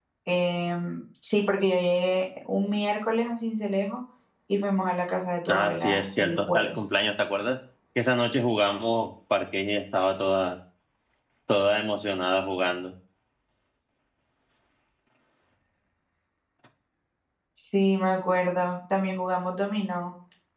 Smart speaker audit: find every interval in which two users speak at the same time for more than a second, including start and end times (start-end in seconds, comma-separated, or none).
5.5-6.8